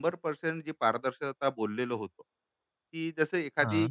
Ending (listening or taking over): listening